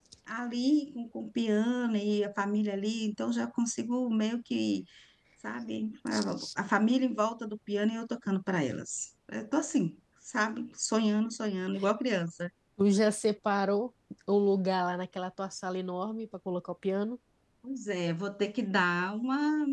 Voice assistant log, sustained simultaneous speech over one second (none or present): none